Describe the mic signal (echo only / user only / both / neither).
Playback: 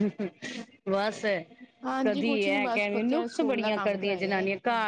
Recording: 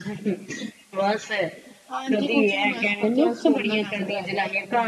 echo only